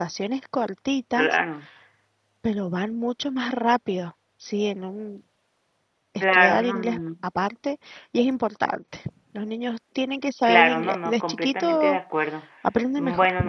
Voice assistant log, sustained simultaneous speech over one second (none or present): present